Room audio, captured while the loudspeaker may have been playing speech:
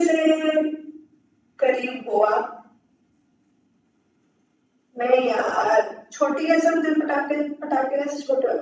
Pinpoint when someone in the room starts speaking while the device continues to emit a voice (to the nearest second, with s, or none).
none